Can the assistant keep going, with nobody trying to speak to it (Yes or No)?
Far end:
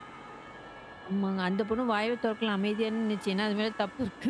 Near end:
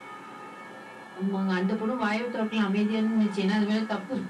Yes